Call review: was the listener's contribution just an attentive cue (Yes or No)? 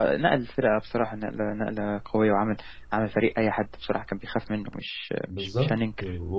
No